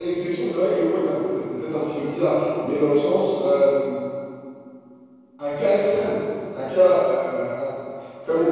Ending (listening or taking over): taking over